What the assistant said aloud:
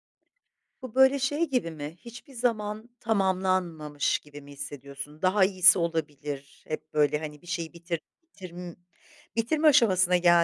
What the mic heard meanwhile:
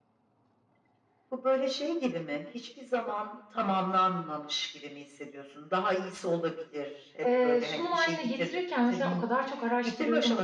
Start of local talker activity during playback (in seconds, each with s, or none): 7.2 s